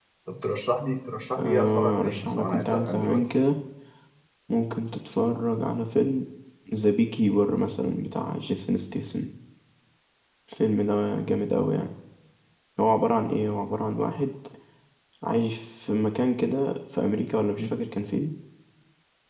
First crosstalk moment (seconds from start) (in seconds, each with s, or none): 1.4 s